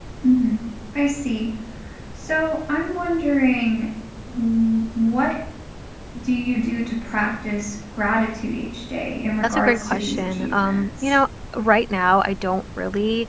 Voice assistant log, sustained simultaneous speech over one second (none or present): present